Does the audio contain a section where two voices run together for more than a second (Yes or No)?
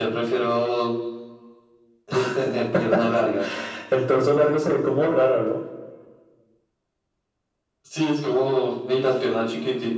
No